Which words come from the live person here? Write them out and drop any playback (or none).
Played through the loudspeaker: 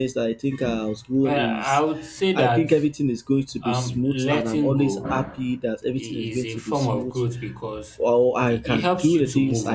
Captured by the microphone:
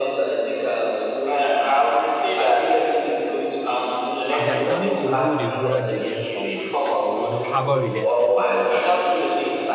If you are determined to hold a grudge against someone or you know harbor resentment against them,